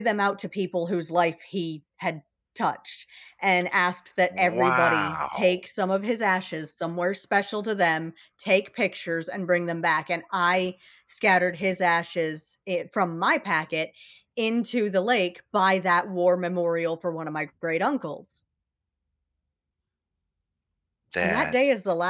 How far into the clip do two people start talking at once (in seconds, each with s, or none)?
4.3 s